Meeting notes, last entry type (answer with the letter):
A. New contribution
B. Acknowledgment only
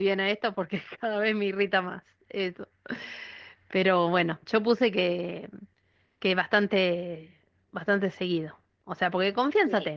B